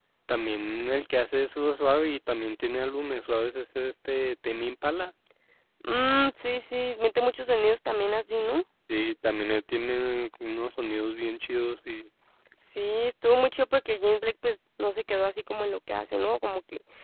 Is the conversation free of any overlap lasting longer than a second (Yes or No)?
Yes